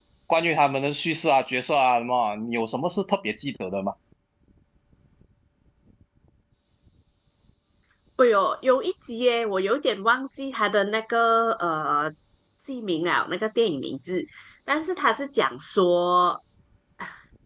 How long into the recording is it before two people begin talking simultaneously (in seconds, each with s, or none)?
none